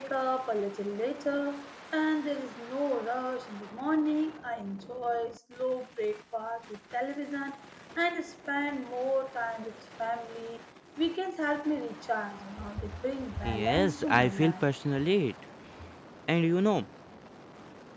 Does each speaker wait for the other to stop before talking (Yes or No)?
No